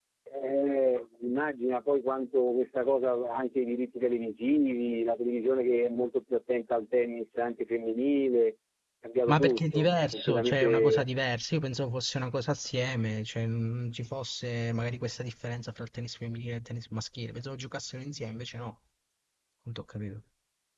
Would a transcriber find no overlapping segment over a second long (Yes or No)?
No